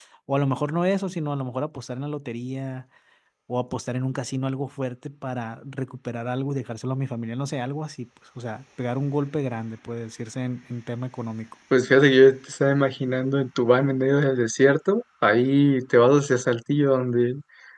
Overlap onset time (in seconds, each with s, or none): none